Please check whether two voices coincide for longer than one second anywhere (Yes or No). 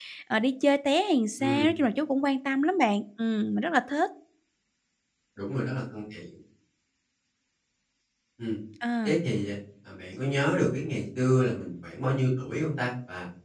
No